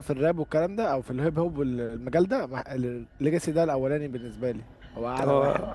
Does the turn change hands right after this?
Yes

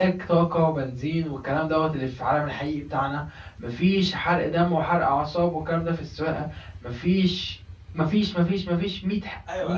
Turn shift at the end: Yes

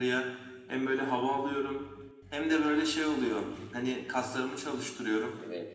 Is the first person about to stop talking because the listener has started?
No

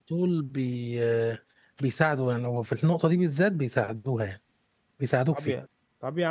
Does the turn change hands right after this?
Yes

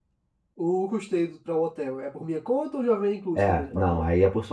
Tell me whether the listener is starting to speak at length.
Yes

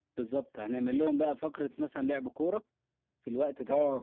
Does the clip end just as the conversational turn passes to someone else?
Yes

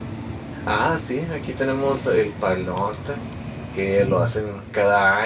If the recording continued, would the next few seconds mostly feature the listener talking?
No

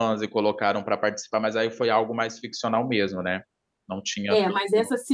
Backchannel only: No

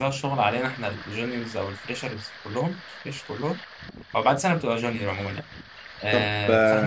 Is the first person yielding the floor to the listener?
No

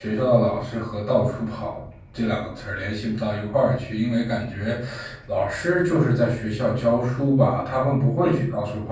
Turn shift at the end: Yes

